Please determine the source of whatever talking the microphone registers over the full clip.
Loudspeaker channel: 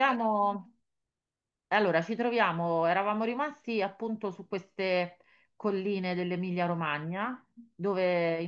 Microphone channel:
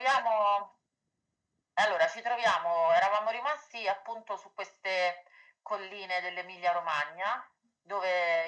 echo only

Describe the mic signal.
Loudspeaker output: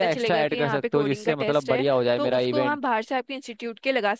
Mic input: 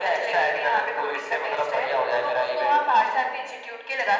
echo only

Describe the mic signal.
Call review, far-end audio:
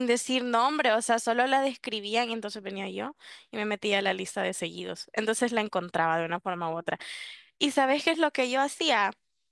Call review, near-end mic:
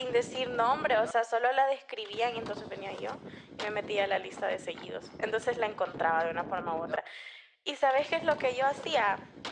echo only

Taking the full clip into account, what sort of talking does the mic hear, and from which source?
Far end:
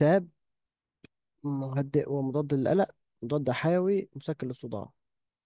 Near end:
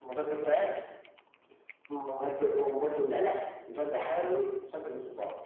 echo only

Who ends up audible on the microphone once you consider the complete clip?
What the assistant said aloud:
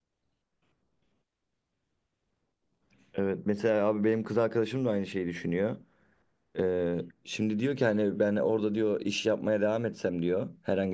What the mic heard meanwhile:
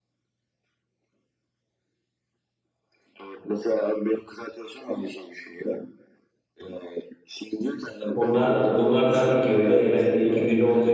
both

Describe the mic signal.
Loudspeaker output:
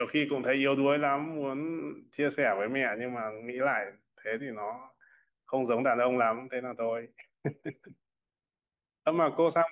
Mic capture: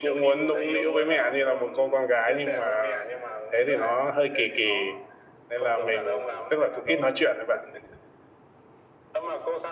both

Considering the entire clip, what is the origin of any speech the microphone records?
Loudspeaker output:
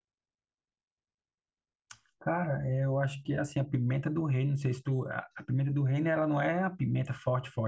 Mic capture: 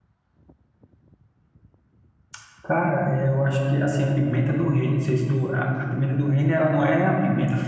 echo only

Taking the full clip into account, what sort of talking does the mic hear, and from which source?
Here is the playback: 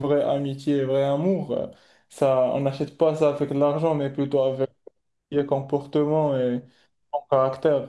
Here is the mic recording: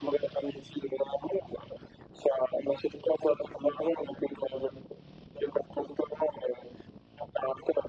echo only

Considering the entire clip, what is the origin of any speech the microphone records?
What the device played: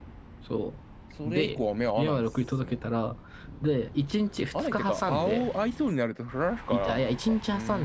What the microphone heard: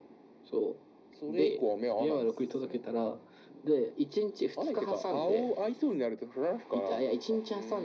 echo only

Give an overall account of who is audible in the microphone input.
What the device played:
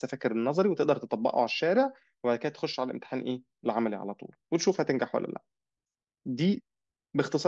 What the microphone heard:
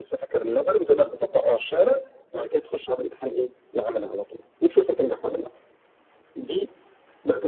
echo only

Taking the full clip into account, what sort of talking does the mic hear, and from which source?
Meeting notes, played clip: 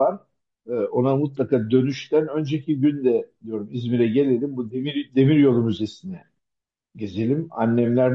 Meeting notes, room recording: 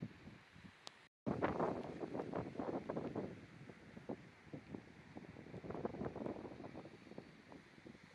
neither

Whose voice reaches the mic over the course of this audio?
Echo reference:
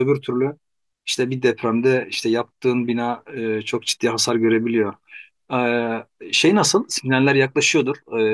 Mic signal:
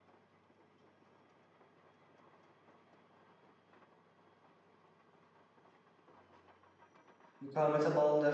user only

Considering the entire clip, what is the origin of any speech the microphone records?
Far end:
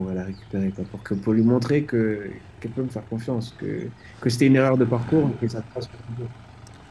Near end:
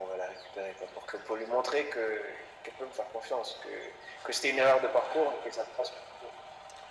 echo only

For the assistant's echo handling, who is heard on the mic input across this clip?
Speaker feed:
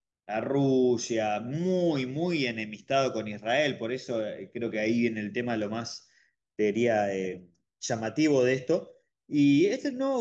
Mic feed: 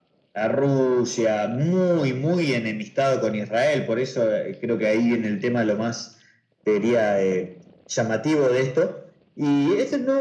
echo only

